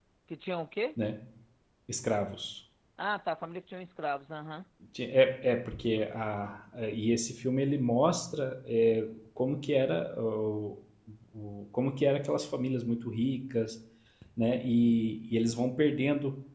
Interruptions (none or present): none